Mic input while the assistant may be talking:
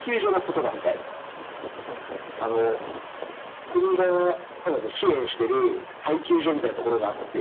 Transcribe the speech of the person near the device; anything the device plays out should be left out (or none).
none